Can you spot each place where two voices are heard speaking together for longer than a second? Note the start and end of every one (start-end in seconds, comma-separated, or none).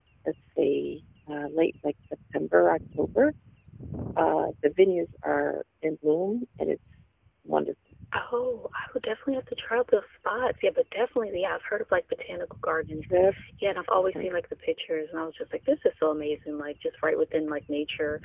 none